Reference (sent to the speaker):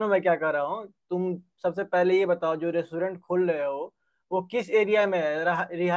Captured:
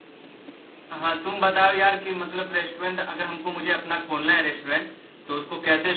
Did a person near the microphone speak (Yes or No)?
Yes